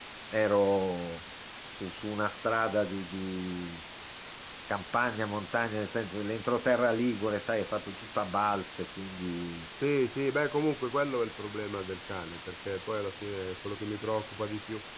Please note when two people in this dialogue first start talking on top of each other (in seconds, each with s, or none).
none